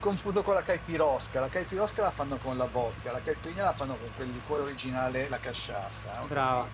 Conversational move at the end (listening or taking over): taking over